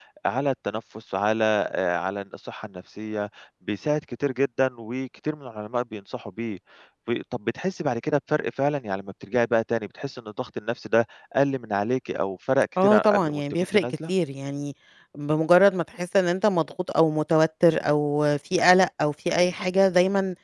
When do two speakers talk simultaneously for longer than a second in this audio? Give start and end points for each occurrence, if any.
12.8-14.1

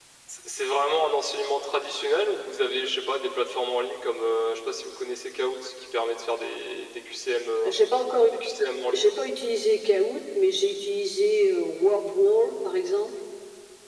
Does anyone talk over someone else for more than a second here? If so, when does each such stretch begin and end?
none

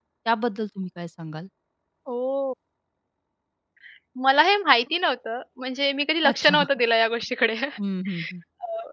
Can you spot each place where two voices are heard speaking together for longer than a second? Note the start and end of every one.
none

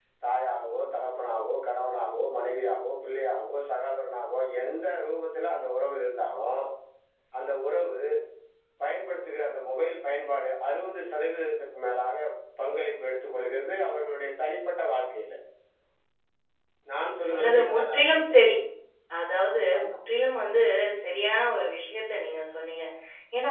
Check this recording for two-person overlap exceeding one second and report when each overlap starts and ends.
17.0-18.3

